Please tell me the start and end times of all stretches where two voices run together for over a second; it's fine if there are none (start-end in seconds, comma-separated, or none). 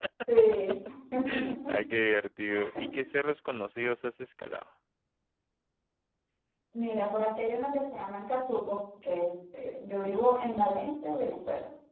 none